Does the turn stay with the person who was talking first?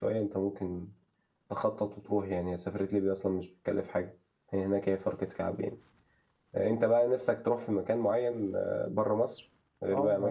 No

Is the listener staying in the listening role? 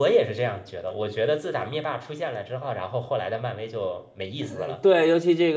No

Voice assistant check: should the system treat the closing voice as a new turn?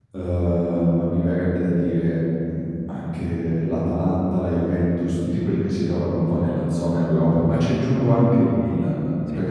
No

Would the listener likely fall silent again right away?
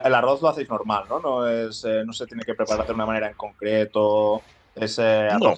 Yes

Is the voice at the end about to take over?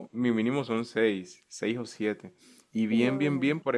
No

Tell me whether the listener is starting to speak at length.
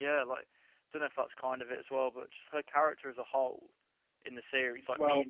No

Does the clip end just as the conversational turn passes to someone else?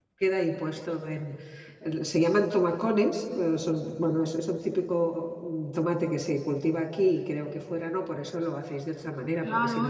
Yes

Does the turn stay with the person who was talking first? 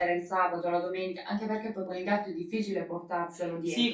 No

